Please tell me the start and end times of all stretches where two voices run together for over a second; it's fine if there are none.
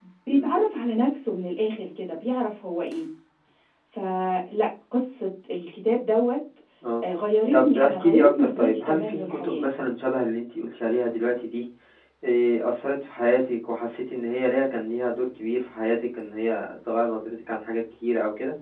7.5-9.7

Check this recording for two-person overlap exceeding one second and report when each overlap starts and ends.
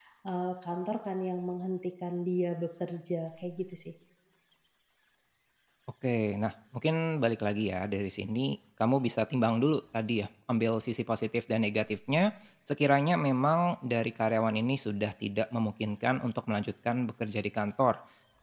none

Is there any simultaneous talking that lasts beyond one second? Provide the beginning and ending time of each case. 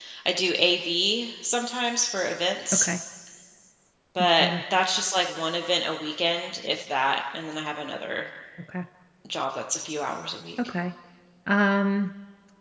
none

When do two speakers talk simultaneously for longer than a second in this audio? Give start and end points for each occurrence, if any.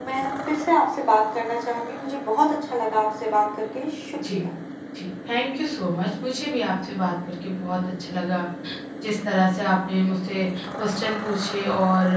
none

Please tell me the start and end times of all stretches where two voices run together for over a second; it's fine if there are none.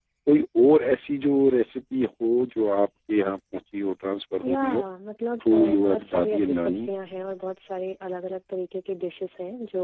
5.5-6.9

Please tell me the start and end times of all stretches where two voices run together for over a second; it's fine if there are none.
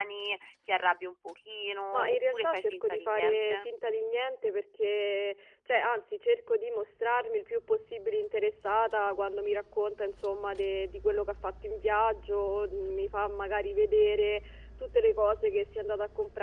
1.9-3.7

